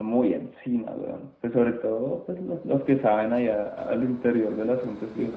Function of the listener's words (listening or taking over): taking over